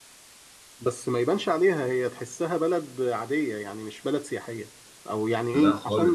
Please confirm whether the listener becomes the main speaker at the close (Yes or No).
No